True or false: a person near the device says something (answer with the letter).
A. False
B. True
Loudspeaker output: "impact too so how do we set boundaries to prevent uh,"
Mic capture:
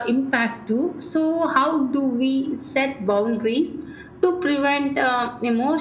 A